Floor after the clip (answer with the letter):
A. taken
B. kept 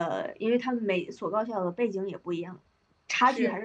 B